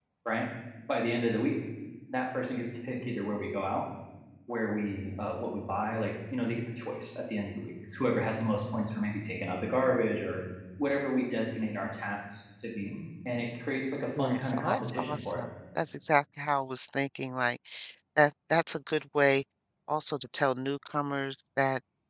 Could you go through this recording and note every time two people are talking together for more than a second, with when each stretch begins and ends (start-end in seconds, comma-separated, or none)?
14.2-15.4